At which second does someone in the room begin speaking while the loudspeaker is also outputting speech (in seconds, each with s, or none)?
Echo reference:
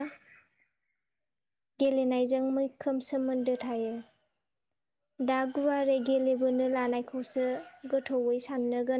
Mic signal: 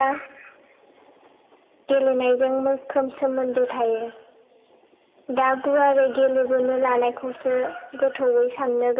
none